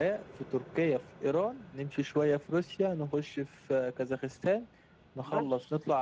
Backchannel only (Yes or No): No